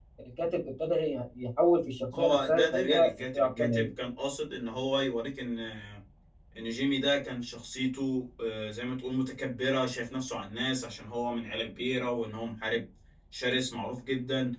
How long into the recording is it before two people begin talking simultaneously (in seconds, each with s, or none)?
2.1 s